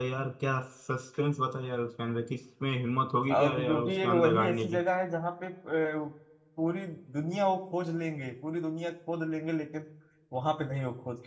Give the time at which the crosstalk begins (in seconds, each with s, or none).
3.3 s